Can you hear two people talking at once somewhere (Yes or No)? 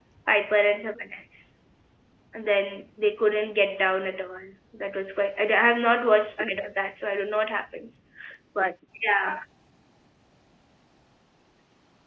No